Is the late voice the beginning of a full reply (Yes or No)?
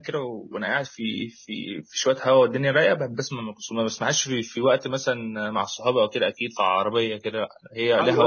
Yes